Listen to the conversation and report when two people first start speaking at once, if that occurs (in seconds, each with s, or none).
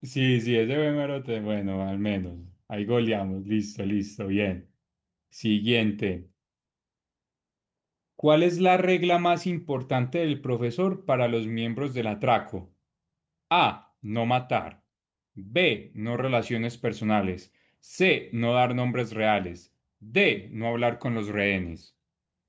none